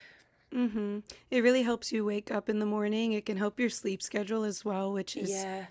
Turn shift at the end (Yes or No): No